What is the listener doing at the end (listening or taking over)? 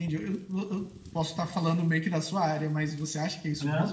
taking over